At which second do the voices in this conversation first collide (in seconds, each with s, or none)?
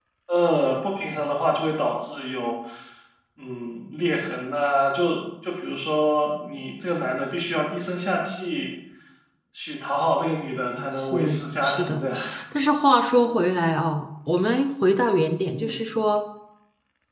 10.7 s